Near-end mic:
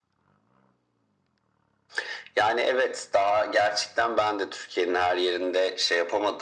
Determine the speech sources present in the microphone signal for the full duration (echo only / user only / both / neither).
echo only